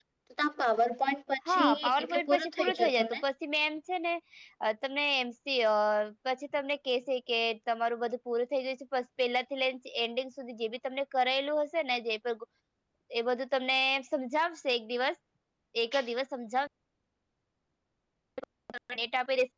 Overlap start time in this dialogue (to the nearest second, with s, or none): 1 s